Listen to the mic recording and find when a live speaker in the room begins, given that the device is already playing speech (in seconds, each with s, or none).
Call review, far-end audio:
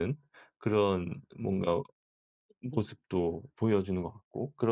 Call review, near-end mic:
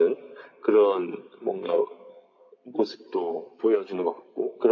none